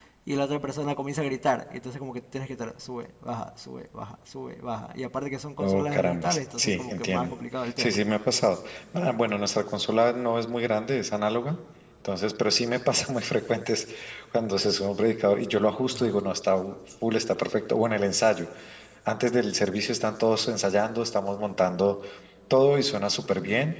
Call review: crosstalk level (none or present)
present